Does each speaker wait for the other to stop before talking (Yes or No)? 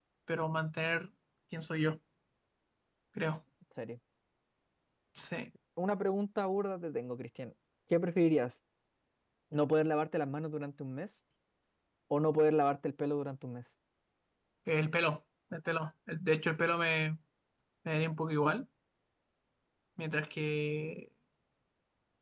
Yes